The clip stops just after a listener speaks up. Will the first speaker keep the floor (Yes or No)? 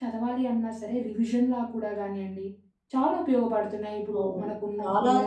No